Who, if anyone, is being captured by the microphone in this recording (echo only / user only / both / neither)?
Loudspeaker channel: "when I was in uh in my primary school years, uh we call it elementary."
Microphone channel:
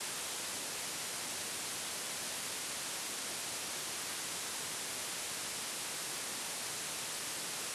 neither